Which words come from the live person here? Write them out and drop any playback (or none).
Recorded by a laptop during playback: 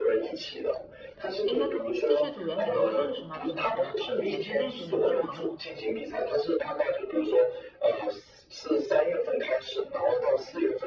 哎，那这些组员你都认识吗？平时是以前就认识，你们是朋友，